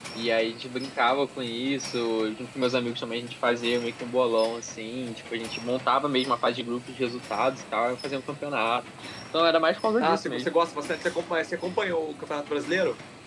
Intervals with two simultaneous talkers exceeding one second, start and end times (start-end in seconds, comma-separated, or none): none